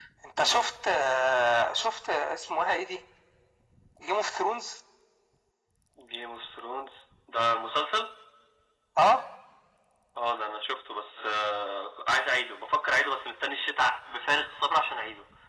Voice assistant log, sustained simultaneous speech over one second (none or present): none